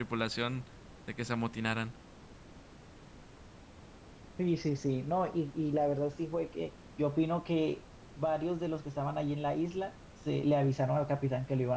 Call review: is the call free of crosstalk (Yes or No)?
Yes